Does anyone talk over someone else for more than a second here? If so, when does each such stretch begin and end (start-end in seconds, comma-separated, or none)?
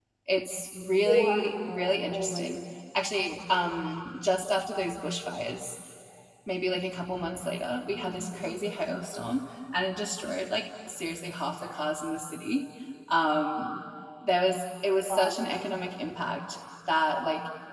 1.1-2.6